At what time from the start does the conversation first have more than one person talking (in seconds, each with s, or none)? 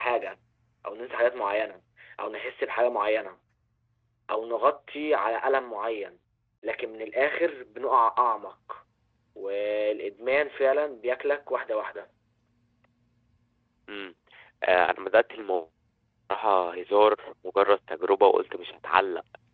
none